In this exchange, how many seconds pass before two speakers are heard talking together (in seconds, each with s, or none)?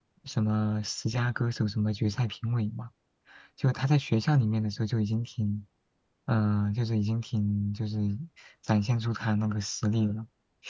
none